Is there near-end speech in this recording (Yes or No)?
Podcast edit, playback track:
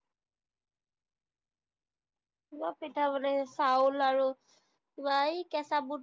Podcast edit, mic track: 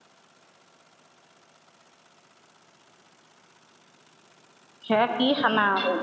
Yes